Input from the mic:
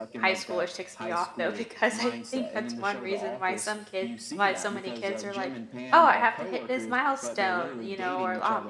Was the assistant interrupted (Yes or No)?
Yes